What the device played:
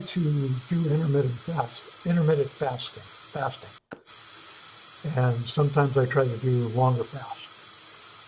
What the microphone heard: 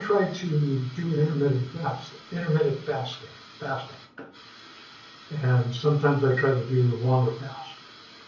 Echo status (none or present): present